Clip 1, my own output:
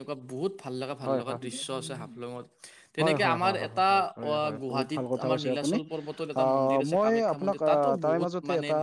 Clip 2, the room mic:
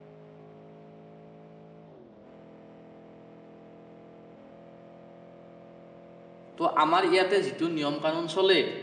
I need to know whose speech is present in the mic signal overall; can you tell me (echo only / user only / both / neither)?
user only